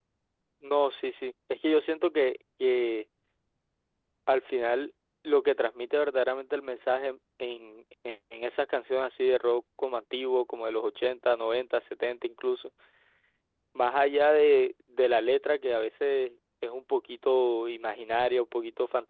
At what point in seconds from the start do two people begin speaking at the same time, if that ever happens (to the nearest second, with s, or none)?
none